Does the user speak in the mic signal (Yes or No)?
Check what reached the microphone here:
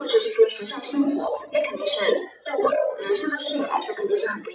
No